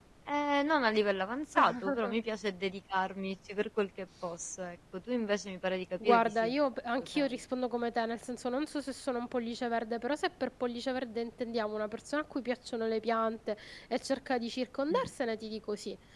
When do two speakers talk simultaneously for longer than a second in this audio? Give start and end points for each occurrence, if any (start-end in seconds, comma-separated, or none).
none